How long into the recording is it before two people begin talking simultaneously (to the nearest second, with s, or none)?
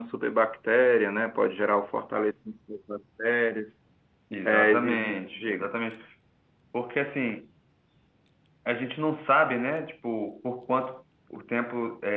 4 s